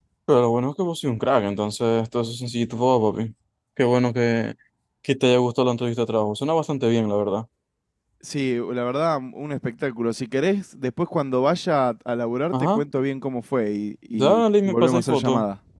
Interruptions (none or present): present